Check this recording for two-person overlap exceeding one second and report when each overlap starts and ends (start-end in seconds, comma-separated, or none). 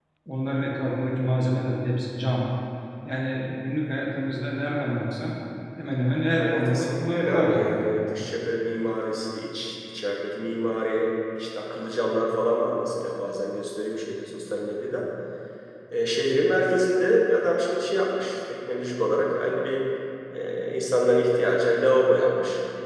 6.3-7.8